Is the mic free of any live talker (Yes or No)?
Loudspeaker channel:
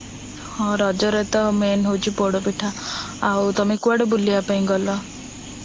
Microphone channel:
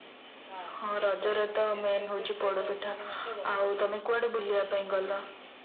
No